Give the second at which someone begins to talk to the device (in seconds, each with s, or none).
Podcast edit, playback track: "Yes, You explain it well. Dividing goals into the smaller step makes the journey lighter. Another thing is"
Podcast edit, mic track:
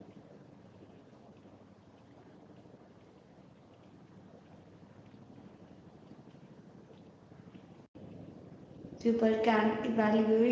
9.0 s